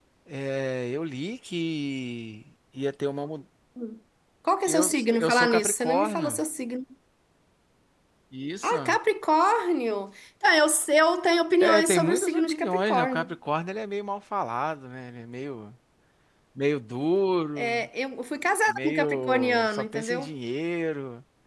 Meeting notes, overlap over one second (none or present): present